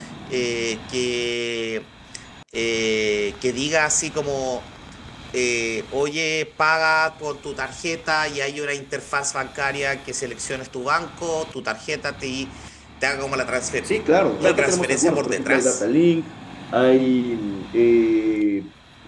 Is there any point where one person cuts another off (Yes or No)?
Yes